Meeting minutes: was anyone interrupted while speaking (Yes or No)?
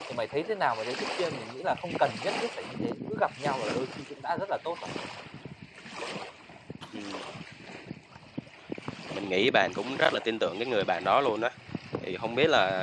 No